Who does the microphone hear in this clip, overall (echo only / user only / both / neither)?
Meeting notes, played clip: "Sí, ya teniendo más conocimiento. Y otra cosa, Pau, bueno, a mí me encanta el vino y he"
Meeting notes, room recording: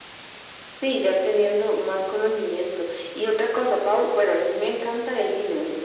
echo only